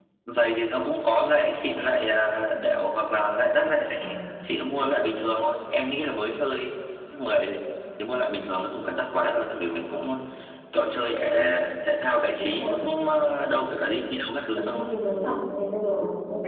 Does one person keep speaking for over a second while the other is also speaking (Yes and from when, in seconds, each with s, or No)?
No